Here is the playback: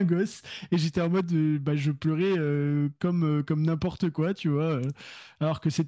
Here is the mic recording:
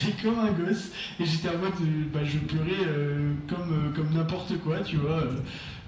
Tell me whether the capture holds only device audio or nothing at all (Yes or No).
Yes